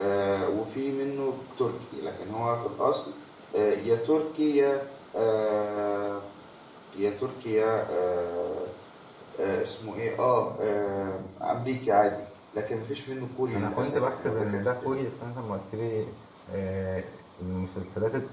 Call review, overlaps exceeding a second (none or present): present